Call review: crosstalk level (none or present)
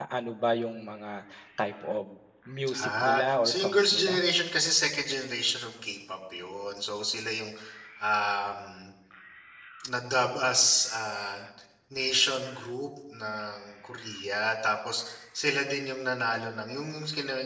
present